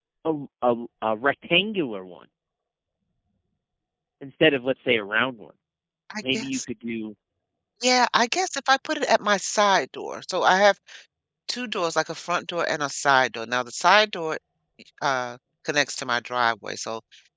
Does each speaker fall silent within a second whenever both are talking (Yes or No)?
Yes